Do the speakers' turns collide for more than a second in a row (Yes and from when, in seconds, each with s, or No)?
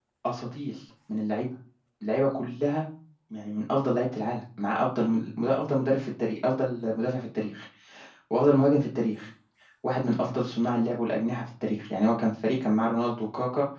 No